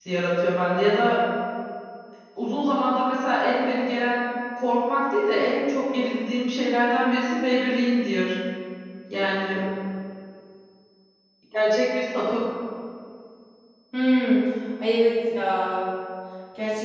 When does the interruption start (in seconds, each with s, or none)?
none